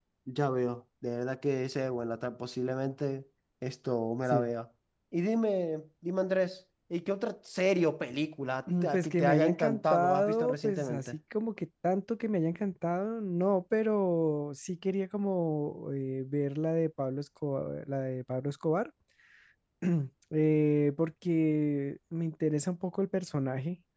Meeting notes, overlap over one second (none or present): present